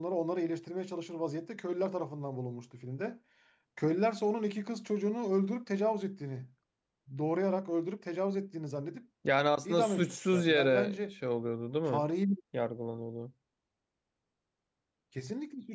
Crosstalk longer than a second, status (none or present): present